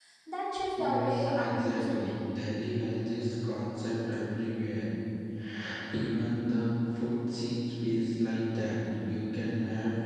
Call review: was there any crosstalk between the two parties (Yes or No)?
Yes